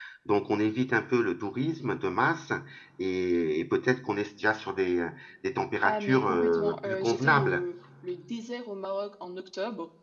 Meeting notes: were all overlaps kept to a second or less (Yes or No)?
No